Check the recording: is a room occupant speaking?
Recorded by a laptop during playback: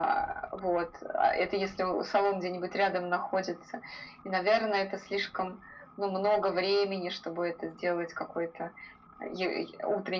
No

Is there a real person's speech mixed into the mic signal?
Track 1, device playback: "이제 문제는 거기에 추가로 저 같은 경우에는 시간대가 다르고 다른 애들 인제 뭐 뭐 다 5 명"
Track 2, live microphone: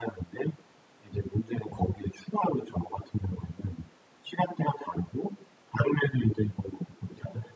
No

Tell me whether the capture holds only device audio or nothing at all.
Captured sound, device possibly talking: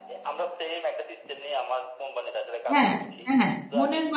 No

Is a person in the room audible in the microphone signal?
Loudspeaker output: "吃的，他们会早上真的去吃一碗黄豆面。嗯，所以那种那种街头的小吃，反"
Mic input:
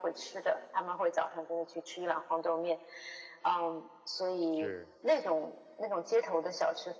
Yes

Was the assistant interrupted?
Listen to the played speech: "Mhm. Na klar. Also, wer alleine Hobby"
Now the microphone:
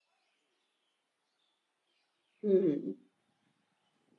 Yes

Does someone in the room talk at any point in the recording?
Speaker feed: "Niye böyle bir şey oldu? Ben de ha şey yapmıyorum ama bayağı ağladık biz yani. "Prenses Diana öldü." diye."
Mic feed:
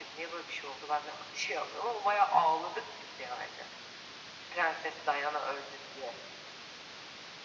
No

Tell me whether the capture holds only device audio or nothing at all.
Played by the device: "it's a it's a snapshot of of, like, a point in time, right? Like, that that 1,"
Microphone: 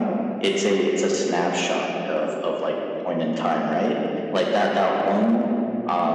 Yes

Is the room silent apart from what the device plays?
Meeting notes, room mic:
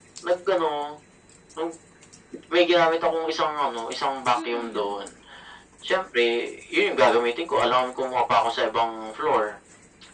No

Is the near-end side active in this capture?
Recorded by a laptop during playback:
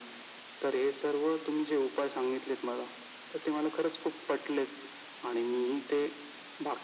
No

